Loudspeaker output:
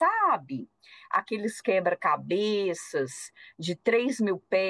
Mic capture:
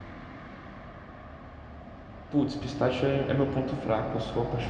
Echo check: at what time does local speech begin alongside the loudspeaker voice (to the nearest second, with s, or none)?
2 s